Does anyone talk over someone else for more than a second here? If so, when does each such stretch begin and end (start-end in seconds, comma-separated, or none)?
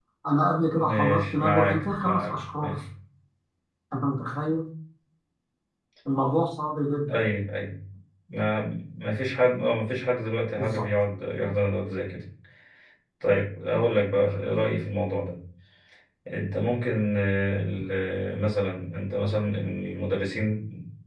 0.8-2.8